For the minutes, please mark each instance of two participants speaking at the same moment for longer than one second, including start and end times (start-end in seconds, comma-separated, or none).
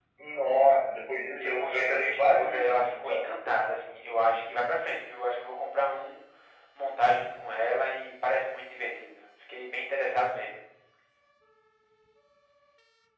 1.4-3.2